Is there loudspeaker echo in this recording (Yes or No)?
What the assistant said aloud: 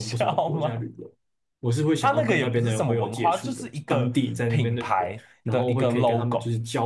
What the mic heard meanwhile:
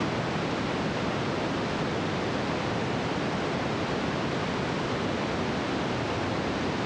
No